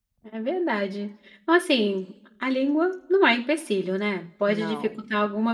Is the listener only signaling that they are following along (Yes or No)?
Yes